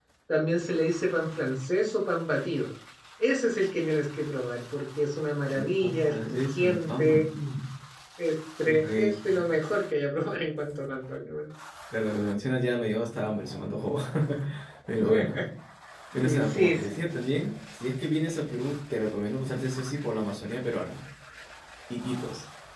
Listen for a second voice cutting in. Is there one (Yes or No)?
Yes